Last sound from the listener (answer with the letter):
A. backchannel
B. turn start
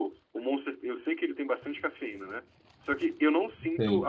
A